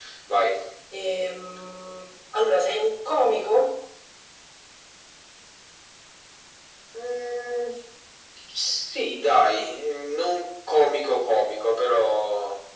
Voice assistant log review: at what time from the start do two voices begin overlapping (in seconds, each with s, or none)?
none